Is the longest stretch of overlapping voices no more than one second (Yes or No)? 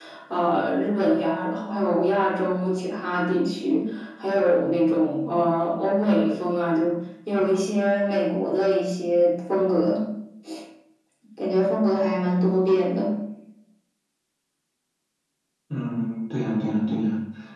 Yes